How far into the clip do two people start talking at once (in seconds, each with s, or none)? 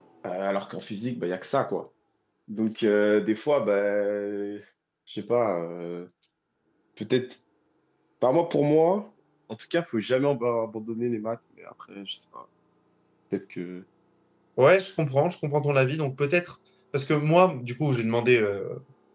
none